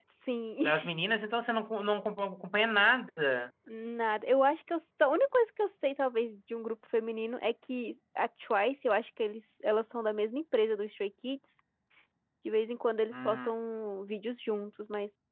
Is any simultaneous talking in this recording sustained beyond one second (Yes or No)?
No